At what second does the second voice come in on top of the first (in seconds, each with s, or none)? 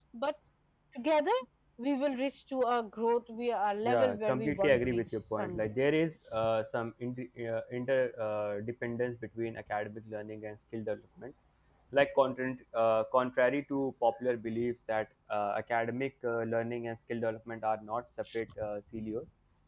3.8 s